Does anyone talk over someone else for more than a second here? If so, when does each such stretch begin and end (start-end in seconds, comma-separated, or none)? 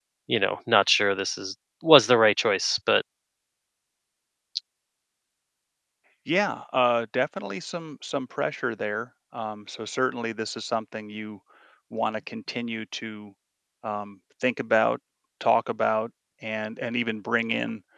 none